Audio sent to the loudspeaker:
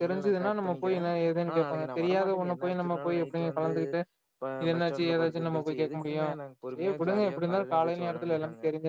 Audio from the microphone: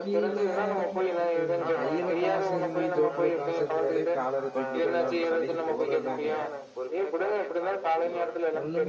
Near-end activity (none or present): present